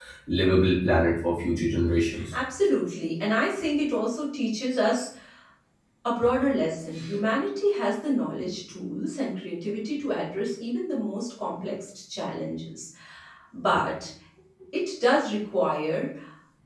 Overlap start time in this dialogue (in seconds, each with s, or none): none